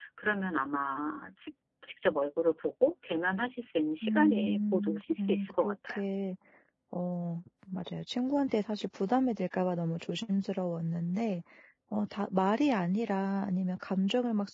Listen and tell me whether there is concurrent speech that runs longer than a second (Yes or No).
Yes